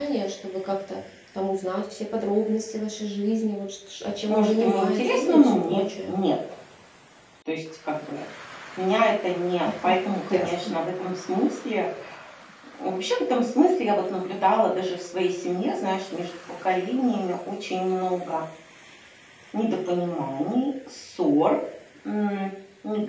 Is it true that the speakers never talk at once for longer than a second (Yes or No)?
No